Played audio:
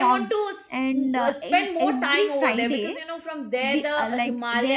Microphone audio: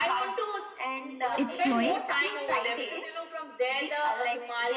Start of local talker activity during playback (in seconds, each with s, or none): 1.4 s